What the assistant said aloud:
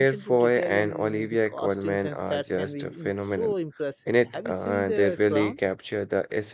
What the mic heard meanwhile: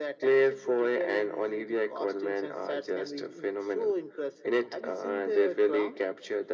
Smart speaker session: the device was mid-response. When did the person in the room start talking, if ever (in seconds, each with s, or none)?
none